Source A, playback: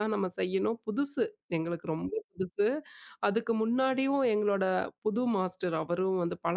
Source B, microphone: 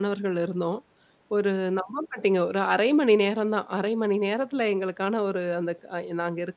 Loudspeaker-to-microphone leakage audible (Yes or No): No